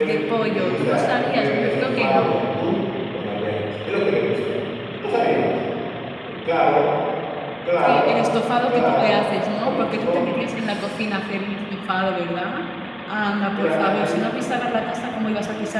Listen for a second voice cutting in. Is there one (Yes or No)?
Yes